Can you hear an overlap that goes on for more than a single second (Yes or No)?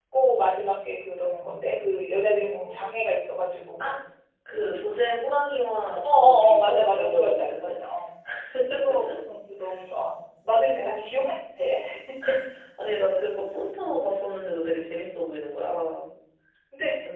Yes